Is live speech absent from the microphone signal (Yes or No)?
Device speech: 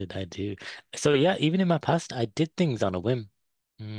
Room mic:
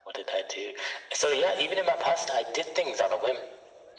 Yes